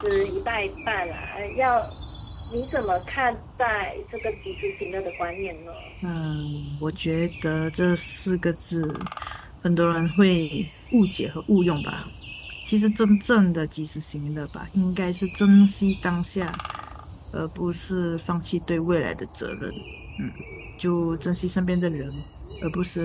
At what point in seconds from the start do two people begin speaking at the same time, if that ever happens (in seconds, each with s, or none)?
none